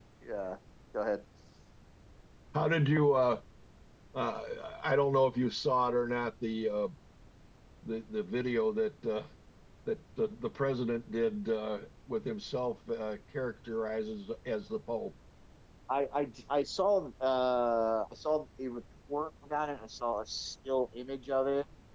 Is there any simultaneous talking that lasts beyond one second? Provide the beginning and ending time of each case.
none

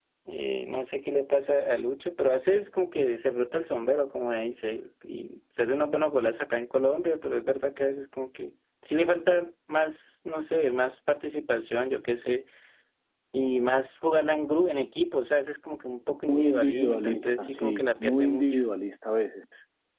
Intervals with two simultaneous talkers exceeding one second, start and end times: 16.3-18.6

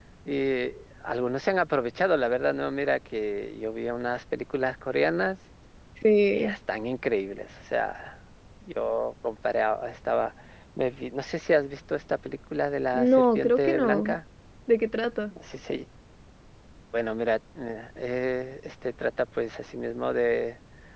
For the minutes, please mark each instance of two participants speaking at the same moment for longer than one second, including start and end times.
12.9-14.2

